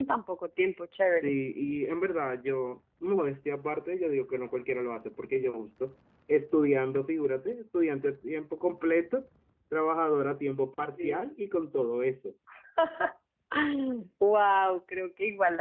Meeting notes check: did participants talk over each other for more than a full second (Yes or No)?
No